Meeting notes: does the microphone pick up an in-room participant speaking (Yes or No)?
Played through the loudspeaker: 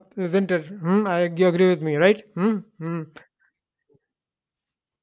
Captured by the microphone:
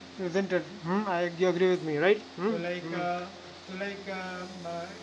Yes